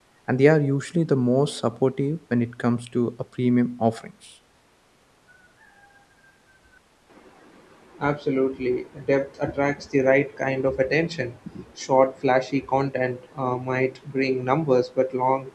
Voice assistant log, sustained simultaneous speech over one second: none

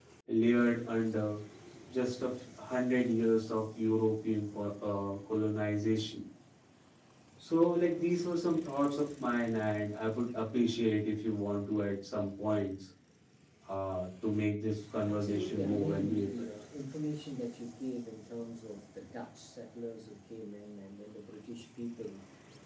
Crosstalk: present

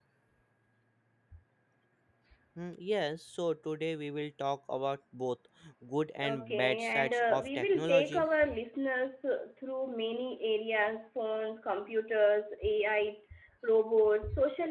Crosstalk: present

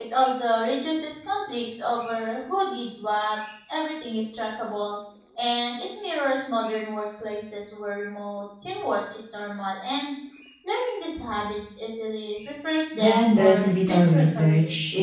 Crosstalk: present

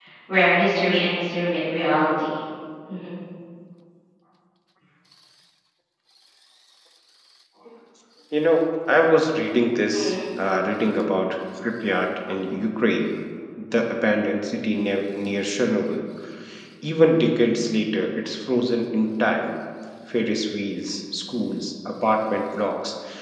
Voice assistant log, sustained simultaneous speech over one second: none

